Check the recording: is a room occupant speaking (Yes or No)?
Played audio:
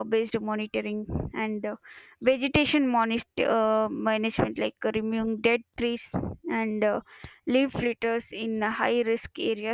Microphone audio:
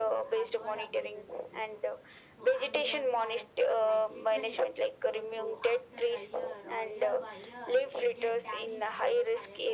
Yes